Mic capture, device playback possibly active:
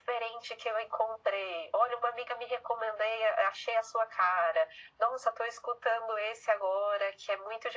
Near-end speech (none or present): none